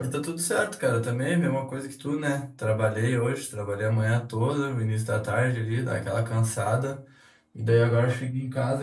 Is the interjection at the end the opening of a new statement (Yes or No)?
No